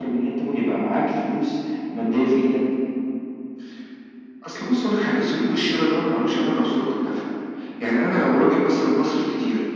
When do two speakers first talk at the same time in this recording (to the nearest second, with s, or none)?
none